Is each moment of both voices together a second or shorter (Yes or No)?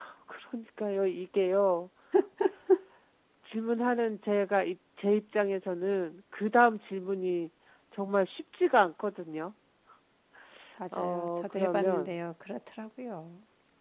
No